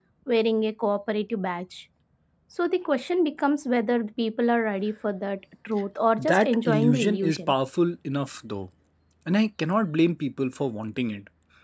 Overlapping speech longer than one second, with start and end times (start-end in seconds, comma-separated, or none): 6.2-7.5